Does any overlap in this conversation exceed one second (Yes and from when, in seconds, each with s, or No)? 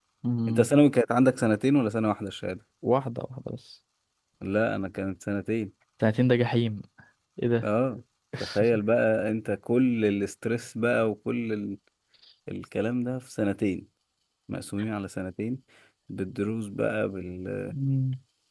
No